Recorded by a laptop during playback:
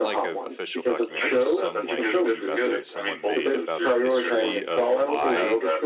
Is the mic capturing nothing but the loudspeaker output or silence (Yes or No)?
No